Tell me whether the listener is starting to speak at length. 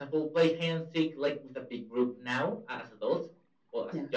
No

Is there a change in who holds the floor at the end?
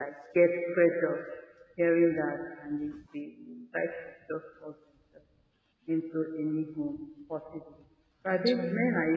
No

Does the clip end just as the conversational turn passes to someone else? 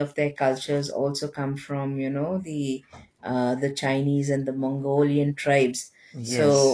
Yes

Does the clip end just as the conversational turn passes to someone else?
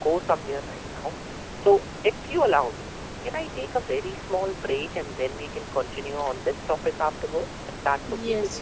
Yes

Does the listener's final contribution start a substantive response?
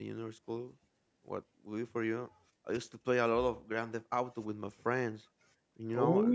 No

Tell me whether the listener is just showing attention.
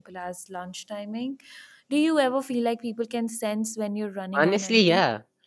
No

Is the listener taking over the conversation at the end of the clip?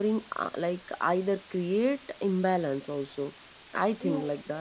Yes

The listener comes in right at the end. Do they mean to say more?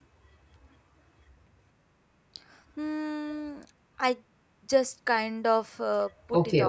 Yes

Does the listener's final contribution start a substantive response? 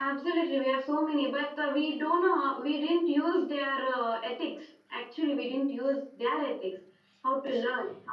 No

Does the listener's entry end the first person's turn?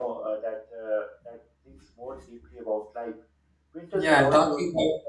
Yes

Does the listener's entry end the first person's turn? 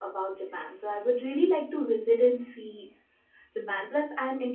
No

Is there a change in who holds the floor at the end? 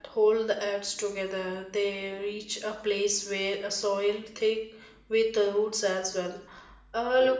No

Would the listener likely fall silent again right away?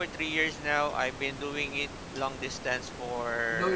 Yes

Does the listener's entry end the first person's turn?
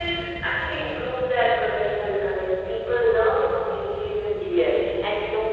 Yes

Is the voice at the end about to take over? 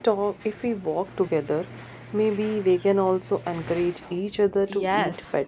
Yes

